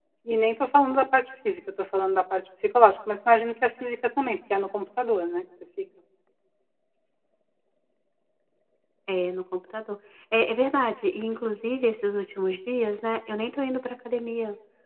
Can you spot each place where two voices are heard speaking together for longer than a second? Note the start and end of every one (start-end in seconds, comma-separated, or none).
none